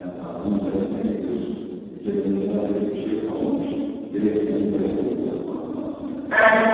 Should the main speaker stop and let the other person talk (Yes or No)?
Yes